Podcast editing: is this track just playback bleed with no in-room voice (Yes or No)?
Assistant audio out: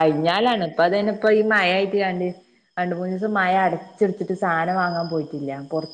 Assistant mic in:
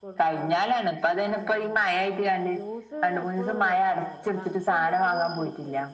No